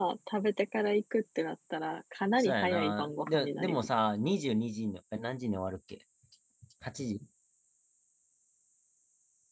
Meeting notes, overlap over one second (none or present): present